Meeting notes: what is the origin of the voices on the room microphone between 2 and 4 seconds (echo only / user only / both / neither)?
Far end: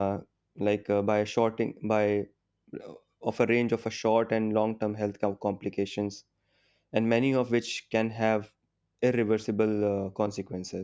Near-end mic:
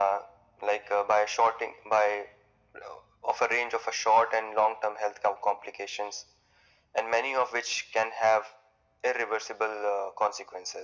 echo only